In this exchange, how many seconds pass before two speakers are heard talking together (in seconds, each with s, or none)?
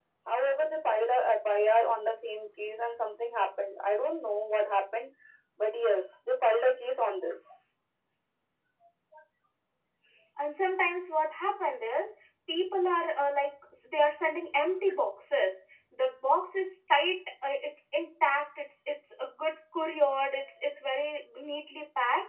none